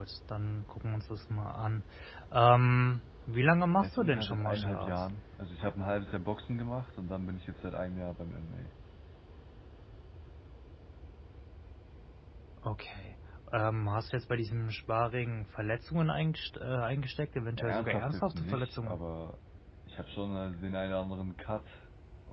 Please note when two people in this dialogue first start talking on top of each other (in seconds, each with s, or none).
3.8 s